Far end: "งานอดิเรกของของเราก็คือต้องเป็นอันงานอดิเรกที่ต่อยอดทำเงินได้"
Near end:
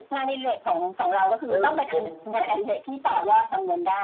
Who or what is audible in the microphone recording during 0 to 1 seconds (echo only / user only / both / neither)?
echo only